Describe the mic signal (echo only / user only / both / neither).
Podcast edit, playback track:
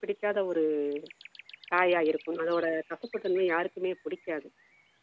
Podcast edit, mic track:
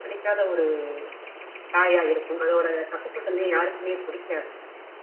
echo only